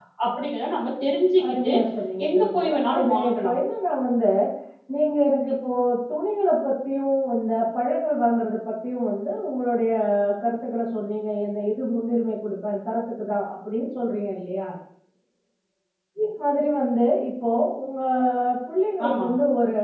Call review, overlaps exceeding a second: present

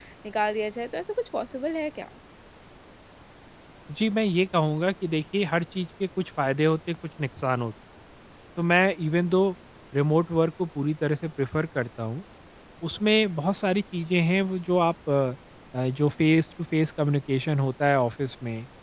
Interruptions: none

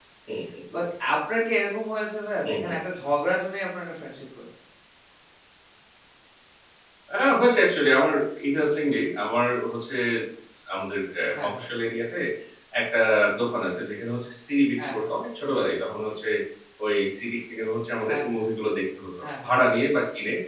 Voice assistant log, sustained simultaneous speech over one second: none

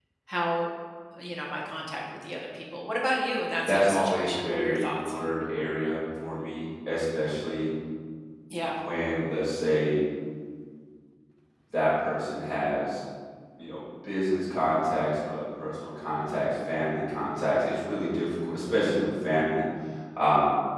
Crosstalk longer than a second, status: present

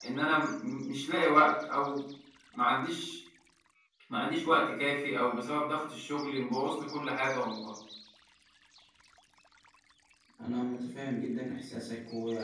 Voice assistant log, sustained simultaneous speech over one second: none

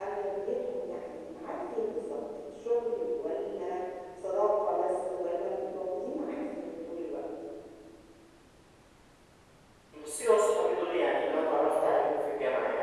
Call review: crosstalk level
none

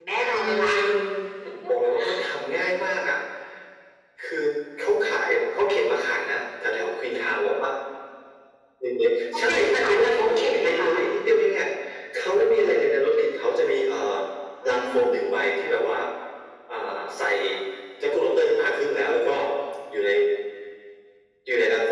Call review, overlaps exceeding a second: present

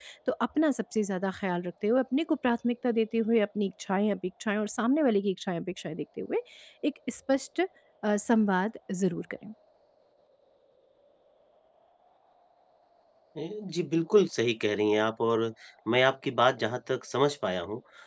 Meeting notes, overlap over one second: none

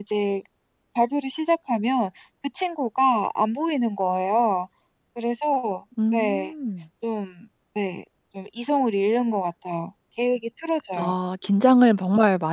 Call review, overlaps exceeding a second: none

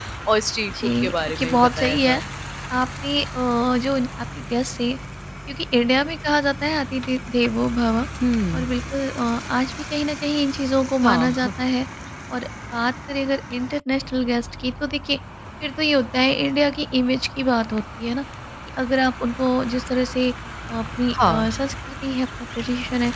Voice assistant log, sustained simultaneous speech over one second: present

